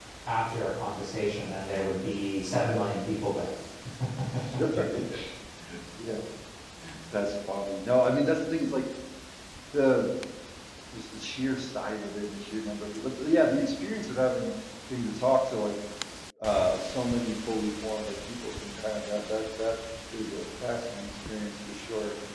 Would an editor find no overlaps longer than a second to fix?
Yes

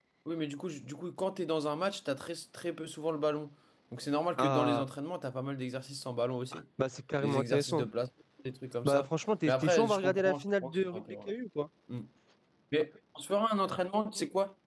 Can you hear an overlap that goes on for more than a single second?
Yes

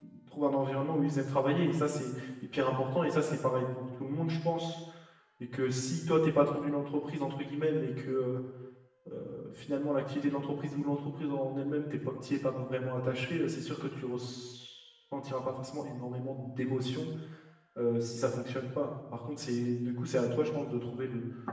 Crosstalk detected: No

